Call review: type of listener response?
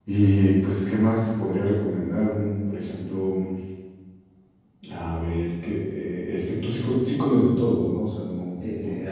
taking over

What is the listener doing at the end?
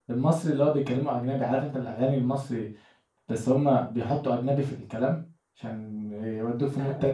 taking over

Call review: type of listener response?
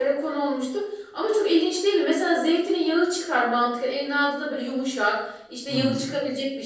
listening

